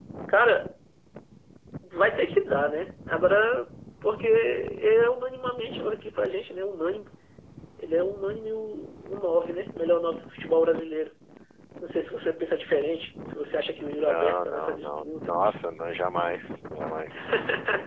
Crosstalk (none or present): present